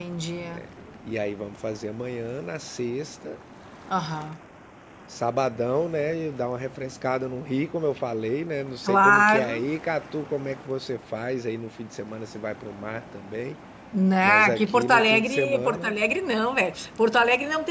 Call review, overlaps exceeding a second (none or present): present